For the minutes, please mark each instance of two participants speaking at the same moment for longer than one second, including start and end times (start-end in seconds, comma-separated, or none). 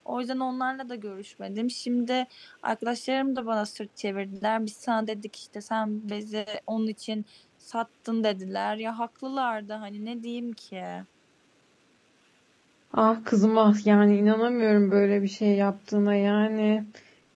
none